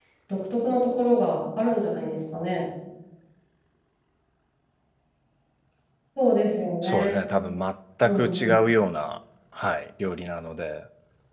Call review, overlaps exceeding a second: none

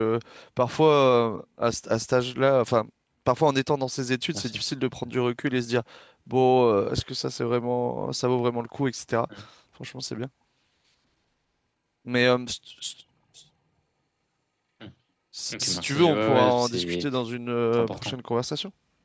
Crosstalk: present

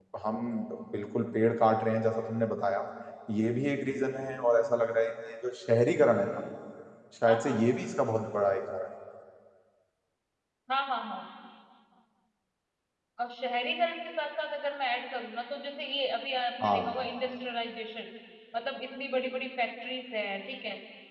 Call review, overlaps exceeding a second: none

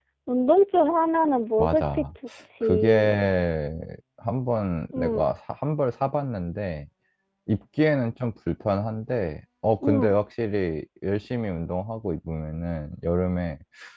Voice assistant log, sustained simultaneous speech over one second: none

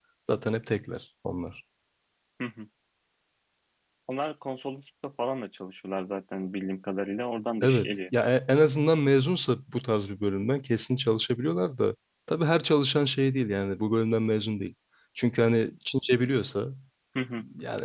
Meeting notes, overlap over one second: none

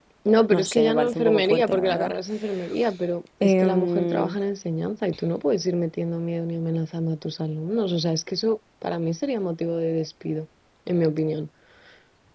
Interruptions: present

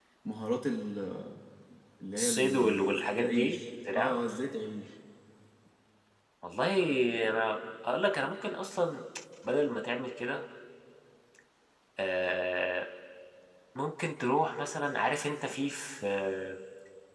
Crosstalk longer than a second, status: present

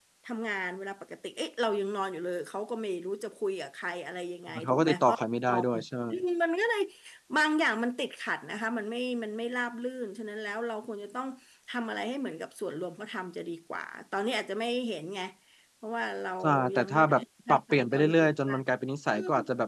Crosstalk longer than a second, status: present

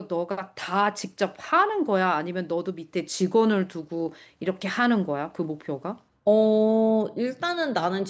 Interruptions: none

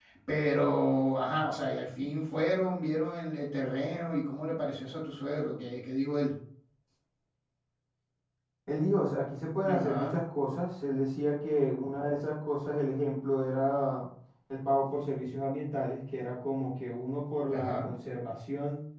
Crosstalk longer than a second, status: none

